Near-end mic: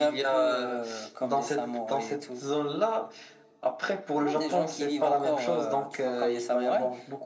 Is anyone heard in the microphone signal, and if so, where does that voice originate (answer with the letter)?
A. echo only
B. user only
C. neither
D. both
A